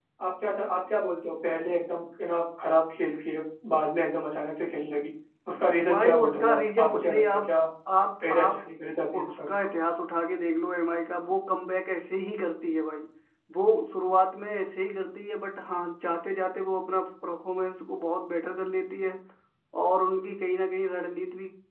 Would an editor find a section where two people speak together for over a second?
Yes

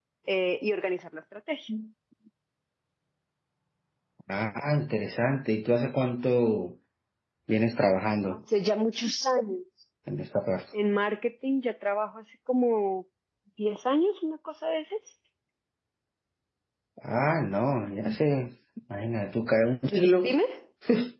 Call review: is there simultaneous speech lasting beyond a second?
No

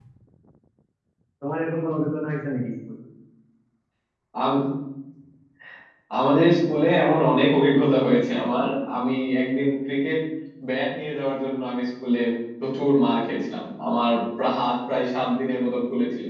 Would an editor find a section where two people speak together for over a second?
No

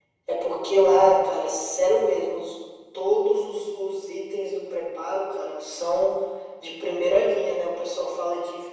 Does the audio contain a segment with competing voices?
No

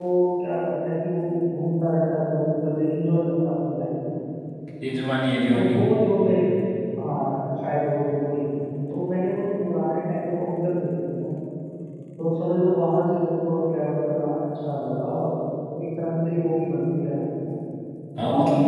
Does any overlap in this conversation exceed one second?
No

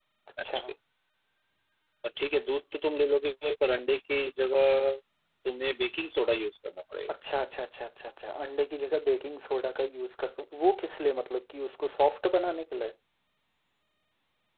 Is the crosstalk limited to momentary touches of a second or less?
Yes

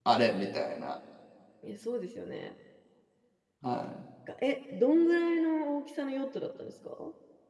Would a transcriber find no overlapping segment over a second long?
Yes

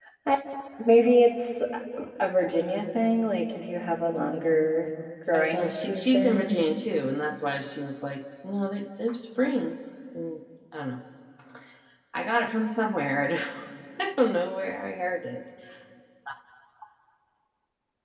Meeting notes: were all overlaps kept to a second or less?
No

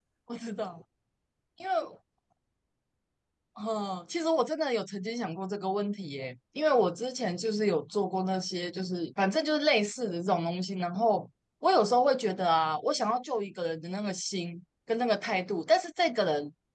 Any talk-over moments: No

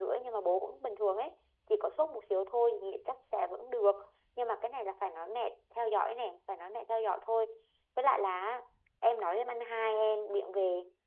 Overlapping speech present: No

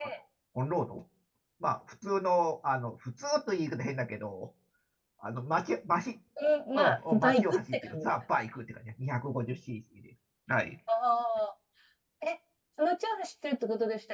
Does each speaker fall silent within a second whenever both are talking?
No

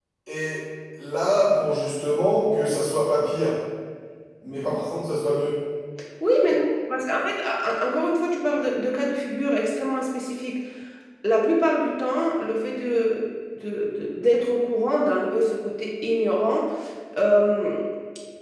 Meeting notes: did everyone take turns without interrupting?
Yes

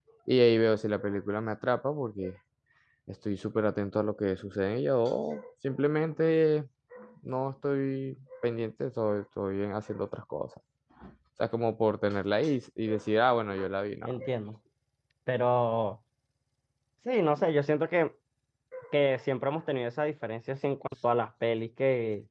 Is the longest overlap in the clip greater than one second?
No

